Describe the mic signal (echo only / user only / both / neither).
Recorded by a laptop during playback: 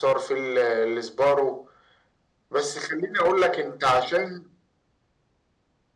echo only